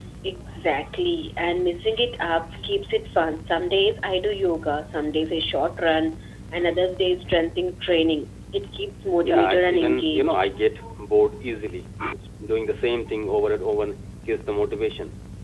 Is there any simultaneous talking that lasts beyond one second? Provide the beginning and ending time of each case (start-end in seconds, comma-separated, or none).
9.2-10.5